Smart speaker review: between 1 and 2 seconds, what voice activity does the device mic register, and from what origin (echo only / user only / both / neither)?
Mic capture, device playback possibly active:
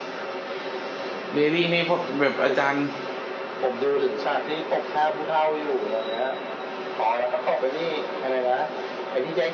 both